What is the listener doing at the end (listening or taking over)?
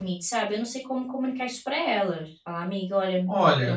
taking over